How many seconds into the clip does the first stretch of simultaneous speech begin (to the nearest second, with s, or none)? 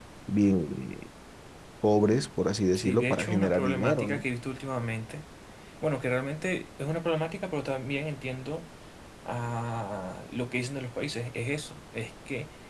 3 s